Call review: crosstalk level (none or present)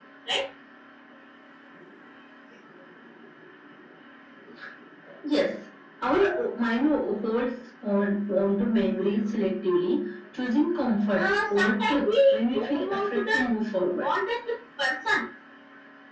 present